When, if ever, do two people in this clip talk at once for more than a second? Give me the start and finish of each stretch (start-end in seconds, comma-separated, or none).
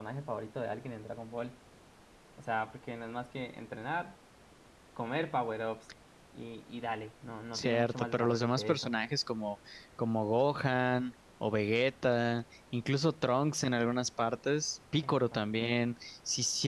7.5-8.9